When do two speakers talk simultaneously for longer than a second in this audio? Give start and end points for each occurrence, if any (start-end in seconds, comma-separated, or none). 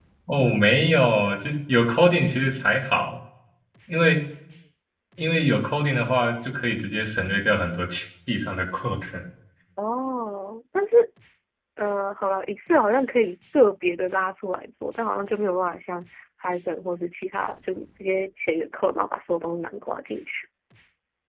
none